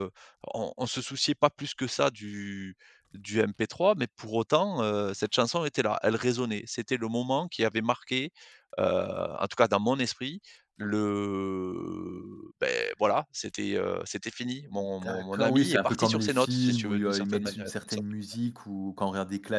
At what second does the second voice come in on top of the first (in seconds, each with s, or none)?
15.0 s